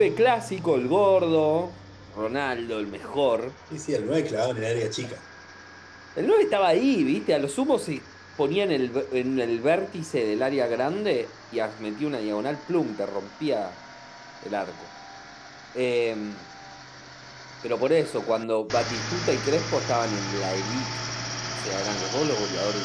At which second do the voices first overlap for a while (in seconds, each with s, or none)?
none